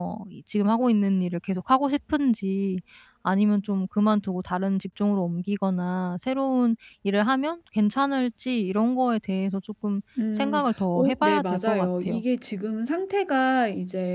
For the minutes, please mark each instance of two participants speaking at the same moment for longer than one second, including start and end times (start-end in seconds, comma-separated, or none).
10.9-12.2